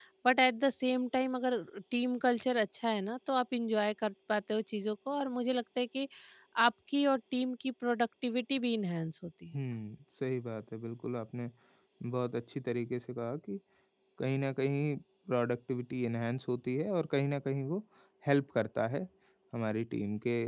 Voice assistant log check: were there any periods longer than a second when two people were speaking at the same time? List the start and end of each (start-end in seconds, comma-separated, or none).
none